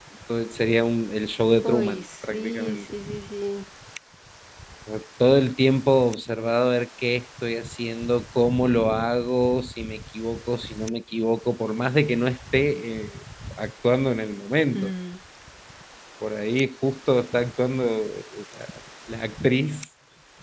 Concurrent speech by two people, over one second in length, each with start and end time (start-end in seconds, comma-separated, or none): 1.6-2.9